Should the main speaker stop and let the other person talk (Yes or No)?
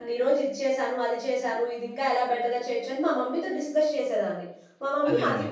No